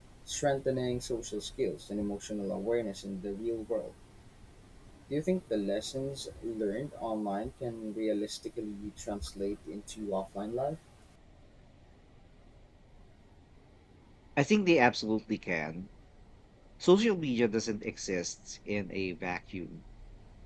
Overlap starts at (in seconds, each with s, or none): none